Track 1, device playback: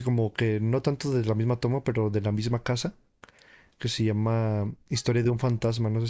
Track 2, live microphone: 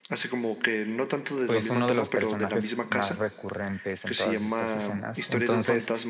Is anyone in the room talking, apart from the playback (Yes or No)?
Yes